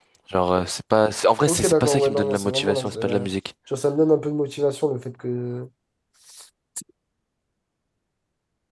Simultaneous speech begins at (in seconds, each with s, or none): 1.5 s